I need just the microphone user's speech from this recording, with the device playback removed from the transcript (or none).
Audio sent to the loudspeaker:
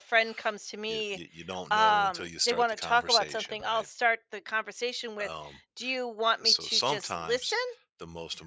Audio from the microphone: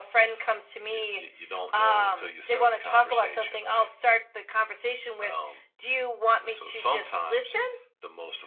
none